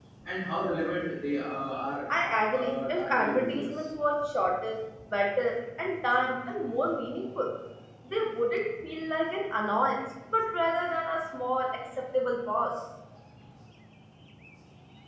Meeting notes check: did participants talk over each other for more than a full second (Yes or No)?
Yes